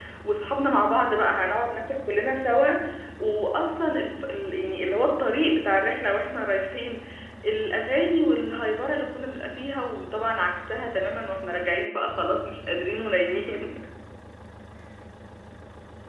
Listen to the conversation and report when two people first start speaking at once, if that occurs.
none

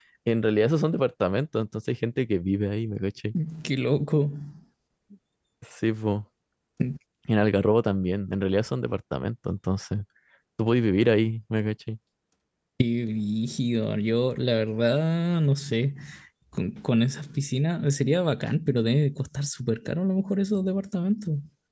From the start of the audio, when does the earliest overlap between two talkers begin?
none

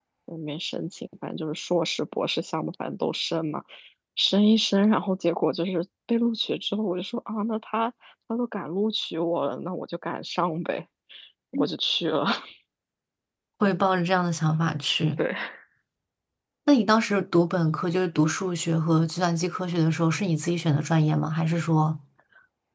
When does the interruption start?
none

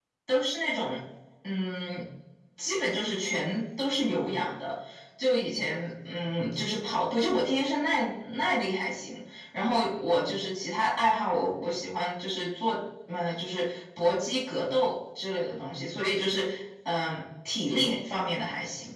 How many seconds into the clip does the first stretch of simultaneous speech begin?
none

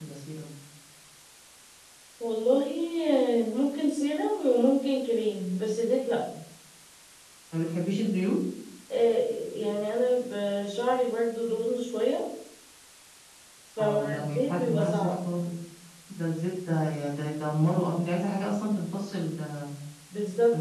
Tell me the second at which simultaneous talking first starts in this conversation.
14 s

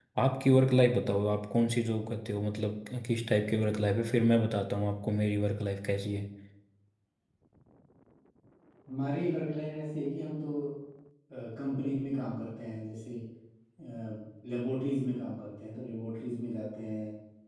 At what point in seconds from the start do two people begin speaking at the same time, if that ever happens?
none

